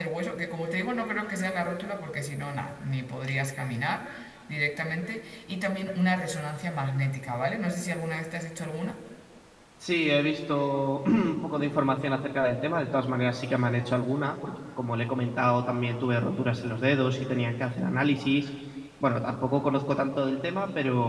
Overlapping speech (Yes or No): No